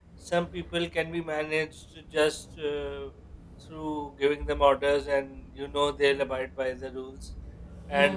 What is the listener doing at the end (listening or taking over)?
listening